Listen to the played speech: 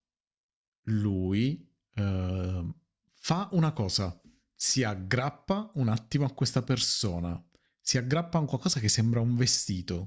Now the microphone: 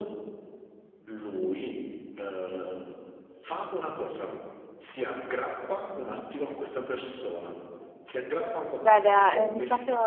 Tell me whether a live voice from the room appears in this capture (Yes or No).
Yes